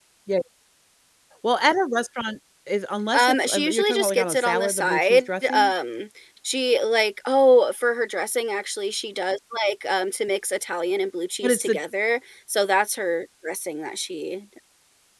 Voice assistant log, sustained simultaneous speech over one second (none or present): present